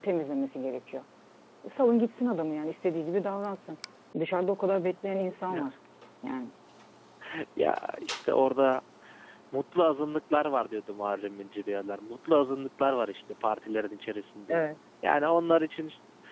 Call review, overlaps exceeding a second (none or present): none